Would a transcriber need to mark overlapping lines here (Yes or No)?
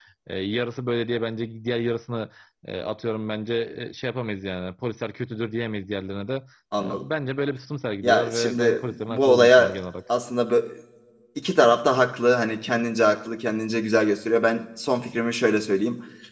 Yes